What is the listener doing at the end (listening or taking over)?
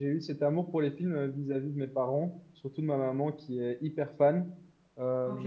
listening